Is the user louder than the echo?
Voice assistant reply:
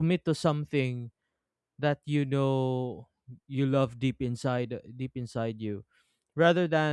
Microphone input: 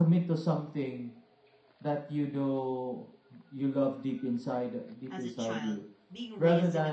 No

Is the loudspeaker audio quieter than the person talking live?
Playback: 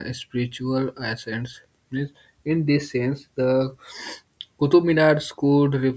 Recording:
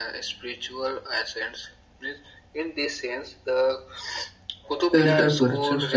Yes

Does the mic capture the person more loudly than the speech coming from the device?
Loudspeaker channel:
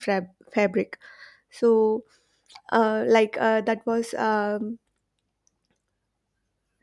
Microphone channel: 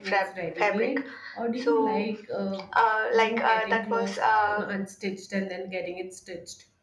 No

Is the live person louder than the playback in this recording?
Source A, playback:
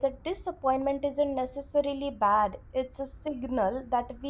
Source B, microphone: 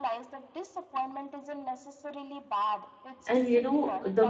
Yes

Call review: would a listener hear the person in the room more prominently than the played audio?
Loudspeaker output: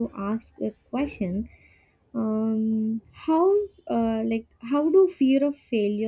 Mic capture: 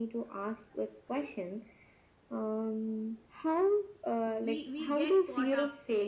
No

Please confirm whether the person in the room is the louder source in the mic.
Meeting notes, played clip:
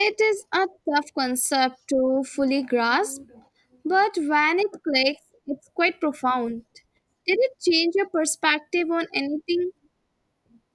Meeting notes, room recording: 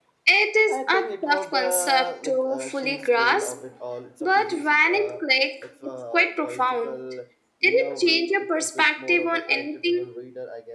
No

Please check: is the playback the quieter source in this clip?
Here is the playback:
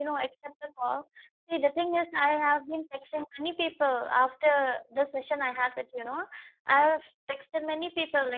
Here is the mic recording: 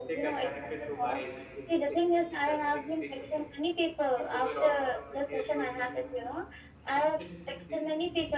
No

